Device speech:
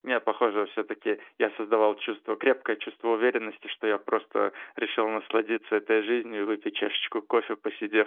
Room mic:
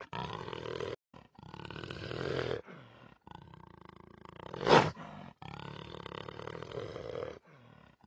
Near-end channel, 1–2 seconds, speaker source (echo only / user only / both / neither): neither